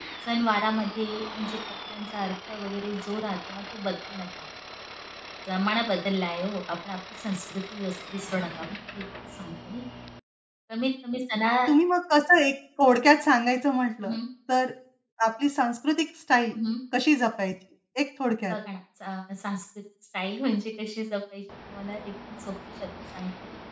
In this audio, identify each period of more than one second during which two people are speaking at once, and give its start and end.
none

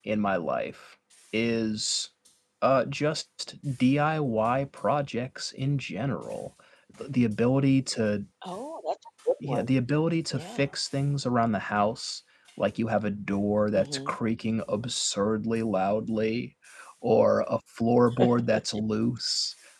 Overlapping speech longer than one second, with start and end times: none

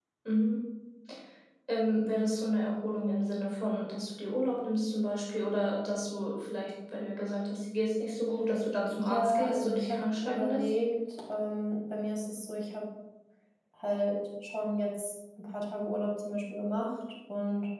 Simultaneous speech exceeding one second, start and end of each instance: 8.9-10.7

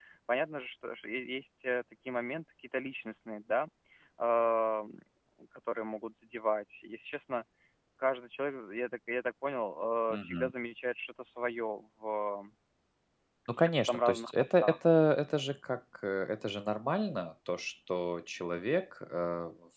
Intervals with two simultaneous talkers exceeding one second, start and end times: 13.6-14.8

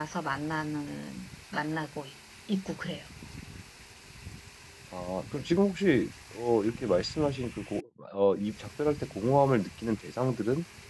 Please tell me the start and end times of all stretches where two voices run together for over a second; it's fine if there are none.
none

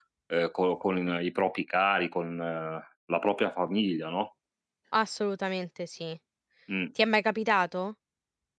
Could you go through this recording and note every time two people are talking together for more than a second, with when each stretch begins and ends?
none

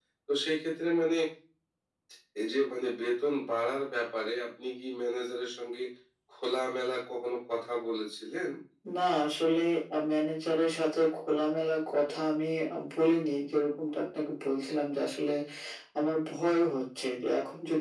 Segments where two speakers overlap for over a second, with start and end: none

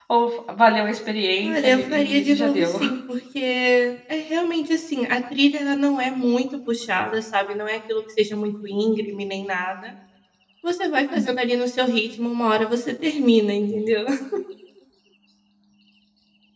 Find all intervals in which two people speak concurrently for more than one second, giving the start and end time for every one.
1.4-2.7

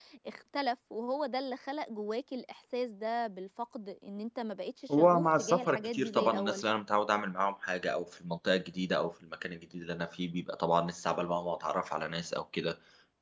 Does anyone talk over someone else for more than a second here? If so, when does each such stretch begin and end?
4.9-6.6

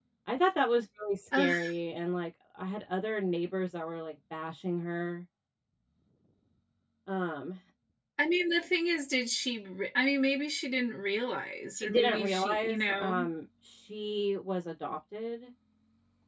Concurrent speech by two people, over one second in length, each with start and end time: 11.8-13.3

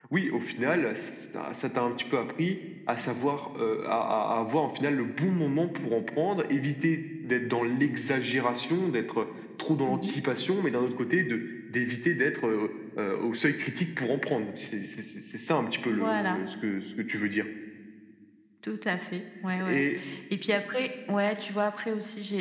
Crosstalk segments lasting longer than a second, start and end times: none

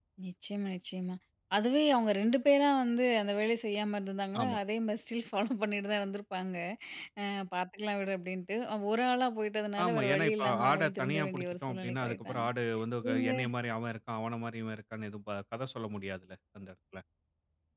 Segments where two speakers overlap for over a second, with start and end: 9.8-12.5

